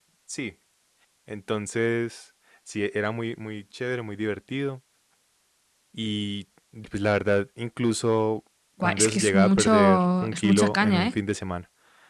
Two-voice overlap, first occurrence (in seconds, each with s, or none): 8.8 s